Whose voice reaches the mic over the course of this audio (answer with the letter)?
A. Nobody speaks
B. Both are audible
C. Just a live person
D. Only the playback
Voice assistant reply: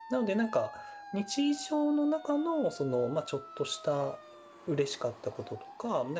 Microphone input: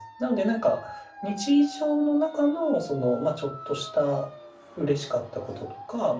D